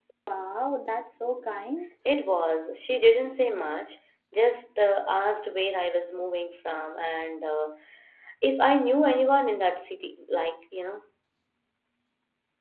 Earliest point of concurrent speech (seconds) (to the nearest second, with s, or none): none